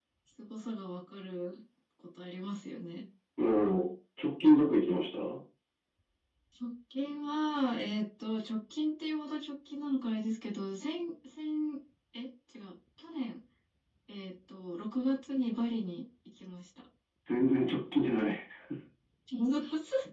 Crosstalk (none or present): none